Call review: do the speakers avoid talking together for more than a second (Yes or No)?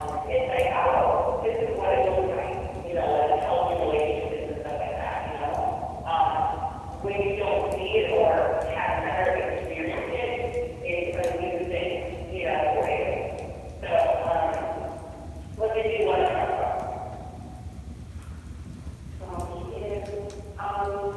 Yes